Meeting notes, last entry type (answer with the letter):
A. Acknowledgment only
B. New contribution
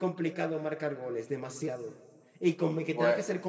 A